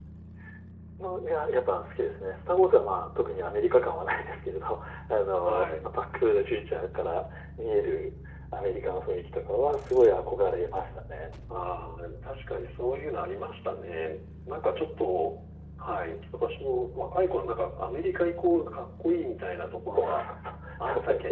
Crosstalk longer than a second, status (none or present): none